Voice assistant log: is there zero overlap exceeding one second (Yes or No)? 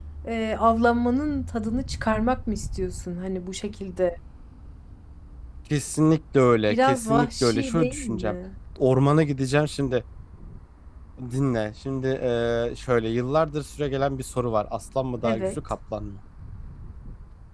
No